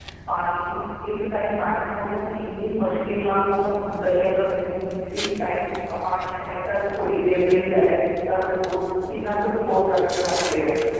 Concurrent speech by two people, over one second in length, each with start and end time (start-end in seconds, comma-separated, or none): none